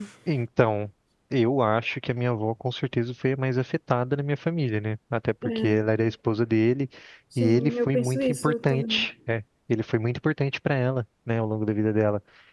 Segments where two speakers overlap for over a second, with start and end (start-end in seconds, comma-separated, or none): 7.4-9.1